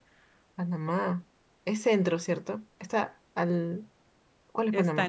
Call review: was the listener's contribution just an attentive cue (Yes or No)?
No